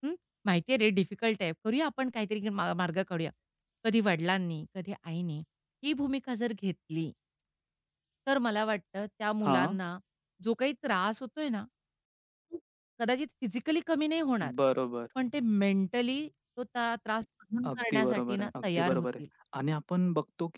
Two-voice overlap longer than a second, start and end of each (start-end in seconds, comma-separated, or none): 17.7-19.2